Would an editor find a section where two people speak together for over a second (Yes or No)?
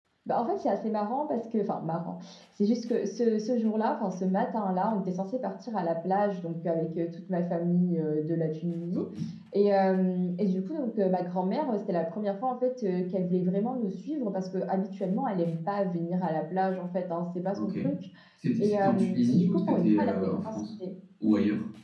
Yes